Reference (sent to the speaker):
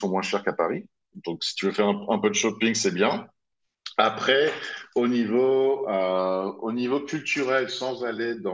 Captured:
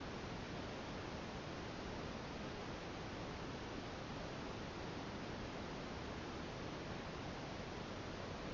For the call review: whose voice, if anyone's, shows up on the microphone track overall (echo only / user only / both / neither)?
neither